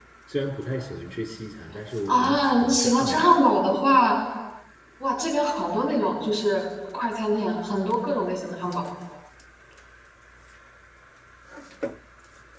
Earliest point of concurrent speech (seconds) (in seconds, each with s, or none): 2.1 s